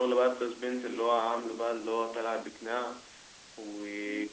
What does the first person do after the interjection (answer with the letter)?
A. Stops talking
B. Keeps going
A